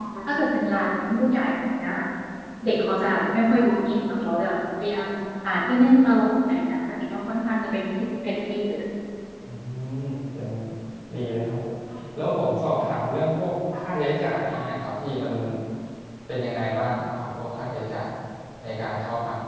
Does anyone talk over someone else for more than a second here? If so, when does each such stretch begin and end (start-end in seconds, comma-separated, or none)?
none